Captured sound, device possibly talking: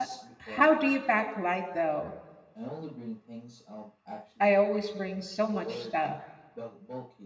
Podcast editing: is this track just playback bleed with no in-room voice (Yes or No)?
No